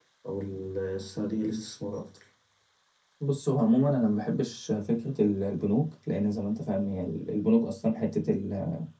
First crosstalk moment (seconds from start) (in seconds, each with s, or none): none